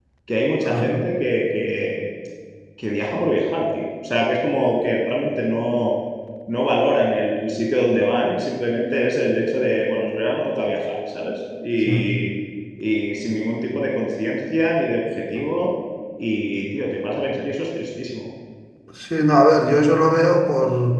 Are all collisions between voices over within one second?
Yes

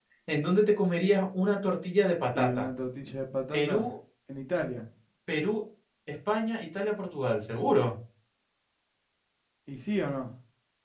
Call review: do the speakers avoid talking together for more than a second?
Yes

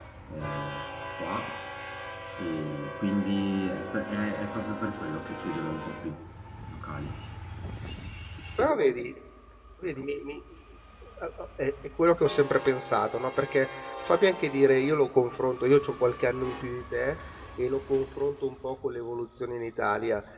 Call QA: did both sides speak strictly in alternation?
Yes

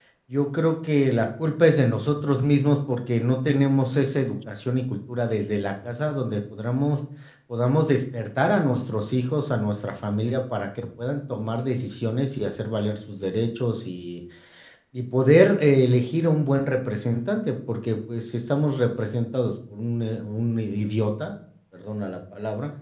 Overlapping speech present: No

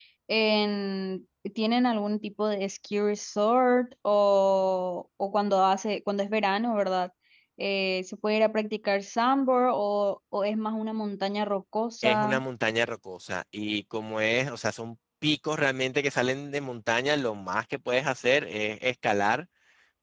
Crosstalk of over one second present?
No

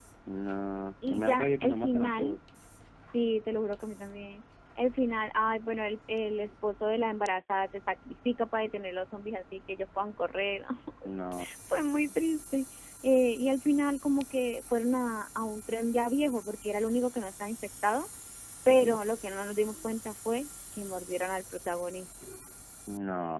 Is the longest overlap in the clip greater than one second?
Yes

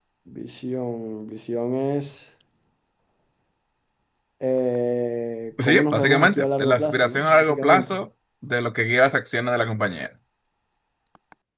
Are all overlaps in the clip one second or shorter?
No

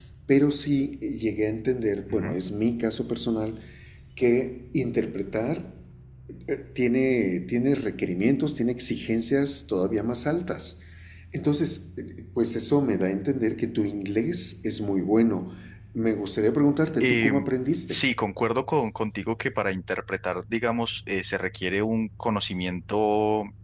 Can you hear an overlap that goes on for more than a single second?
No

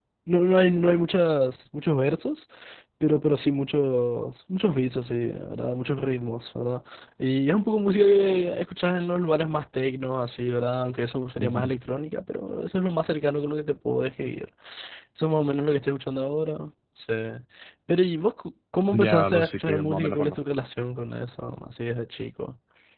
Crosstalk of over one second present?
Yes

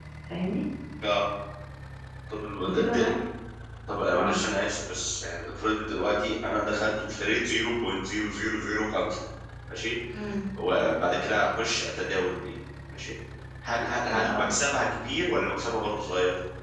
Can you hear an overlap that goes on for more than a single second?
No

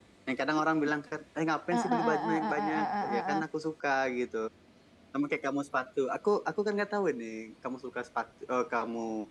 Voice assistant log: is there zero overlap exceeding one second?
No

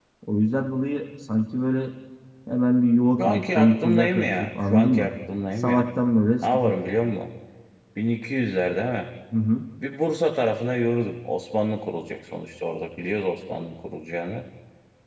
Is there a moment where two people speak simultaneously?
Yes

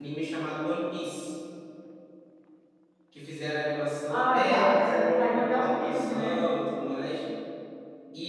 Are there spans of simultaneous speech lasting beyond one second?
Yes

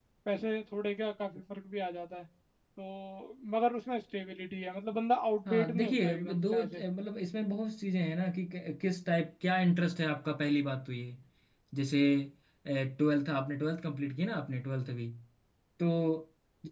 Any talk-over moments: Yes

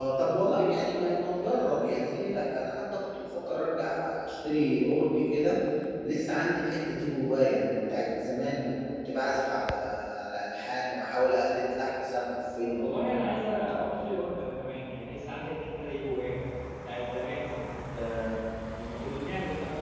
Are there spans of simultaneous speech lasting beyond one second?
No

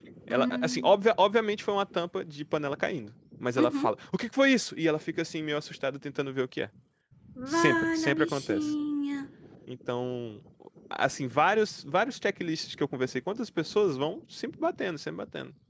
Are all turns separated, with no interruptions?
No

